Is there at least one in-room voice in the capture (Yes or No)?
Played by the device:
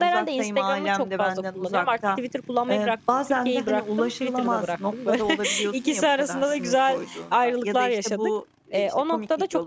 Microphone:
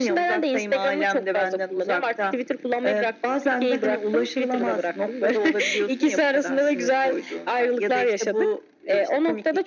No